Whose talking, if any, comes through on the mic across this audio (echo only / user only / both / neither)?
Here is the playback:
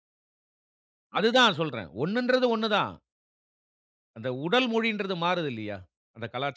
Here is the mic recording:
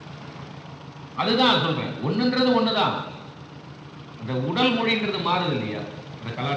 echo only